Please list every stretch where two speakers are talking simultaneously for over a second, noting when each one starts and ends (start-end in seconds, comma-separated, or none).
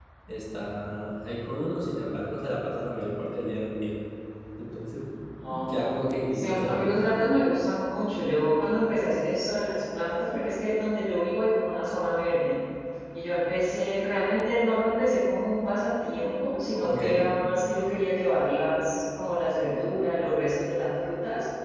5.7-7.1